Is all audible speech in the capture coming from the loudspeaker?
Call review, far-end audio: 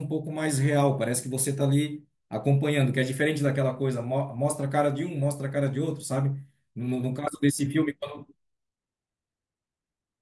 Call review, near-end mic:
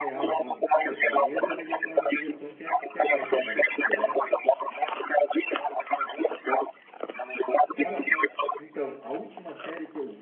No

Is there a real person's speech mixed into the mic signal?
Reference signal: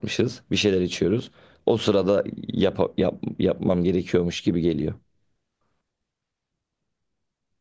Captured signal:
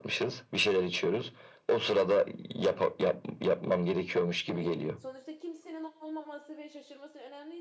Yes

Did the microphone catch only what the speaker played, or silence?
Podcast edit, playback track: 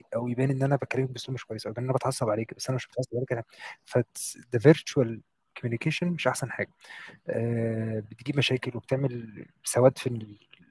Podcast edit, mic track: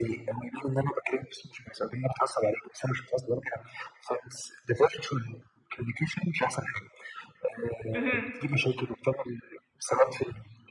No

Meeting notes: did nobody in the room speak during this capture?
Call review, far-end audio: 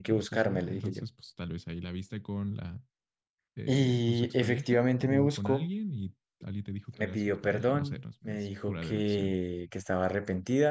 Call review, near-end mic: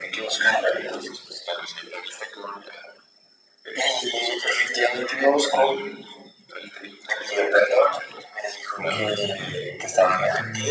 No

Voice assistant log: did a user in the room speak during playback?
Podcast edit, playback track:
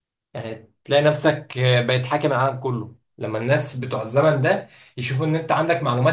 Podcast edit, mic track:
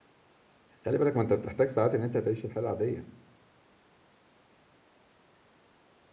Yes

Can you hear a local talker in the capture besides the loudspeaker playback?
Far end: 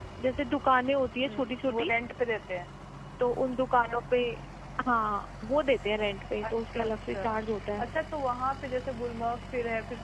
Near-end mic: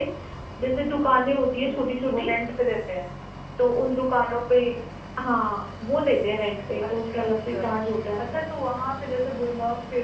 No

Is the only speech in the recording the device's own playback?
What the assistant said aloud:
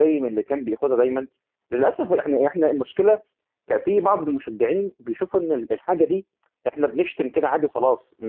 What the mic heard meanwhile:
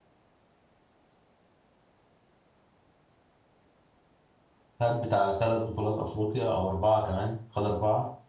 No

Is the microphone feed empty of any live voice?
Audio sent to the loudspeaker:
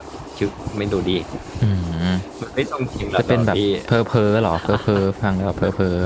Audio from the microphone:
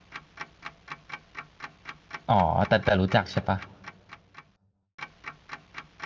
No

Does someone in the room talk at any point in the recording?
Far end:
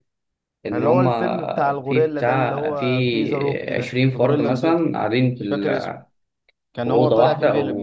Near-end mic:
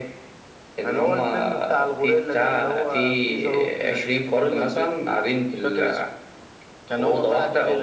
No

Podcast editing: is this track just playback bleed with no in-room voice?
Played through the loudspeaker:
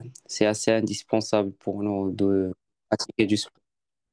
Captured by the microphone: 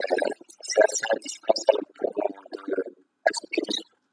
Yes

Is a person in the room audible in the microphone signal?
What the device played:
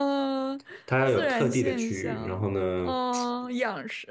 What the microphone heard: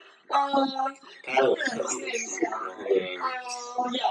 No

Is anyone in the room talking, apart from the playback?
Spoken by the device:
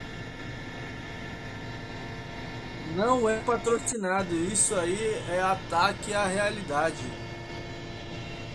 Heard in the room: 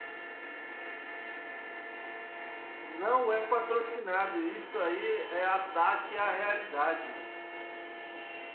No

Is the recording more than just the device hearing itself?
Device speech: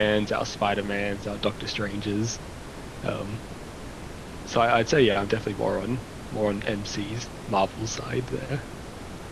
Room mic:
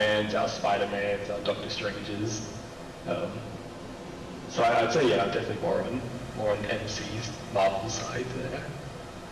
No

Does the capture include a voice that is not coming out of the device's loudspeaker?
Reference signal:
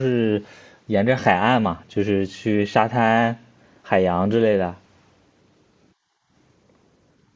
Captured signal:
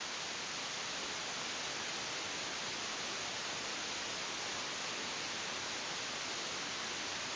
No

